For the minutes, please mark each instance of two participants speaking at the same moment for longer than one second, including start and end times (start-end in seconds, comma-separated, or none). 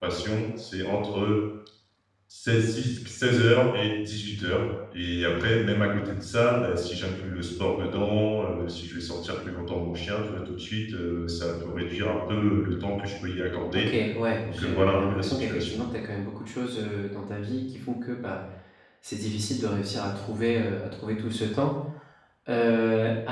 14.4-15.8